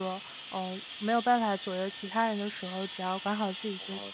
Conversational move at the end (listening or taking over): taking over